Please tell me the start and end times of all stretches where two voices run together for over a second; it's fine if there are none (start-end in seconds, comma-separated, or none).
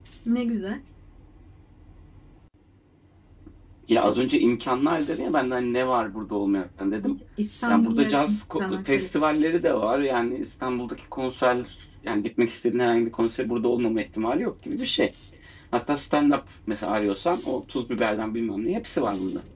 7.7-9.1